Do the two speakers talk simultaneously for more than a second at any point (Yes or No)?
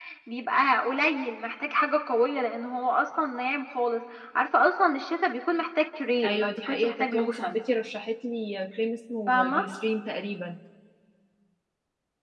Yes